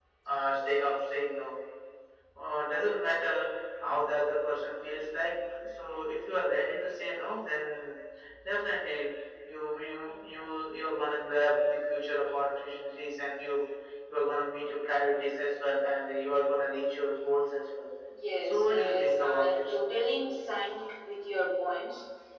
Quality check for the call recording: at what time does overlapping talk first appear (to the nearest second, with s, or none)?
18 s